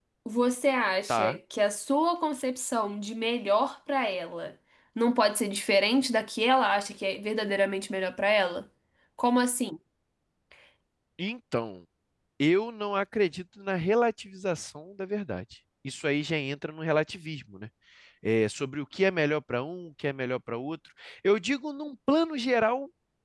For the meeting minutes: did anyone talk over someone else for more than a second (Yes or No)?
No